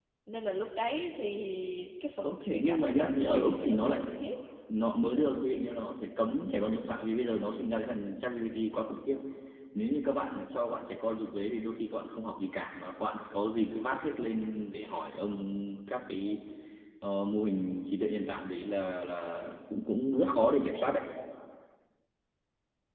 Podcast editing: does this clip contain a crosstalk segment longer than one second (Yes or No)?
Yes